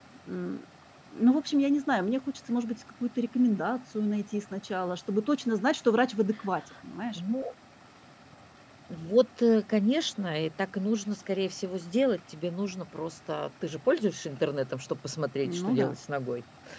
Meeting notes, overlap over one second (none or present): none